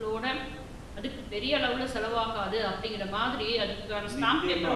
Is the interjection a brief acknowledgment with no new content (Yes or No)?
No